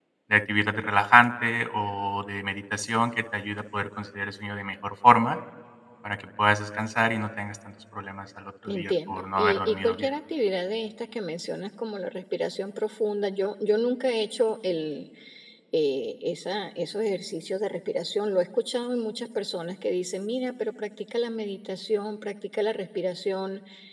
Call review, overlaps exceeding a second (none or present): present